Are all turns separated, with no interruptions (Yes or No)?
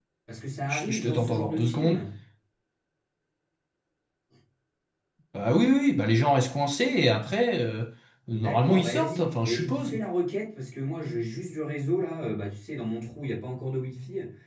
No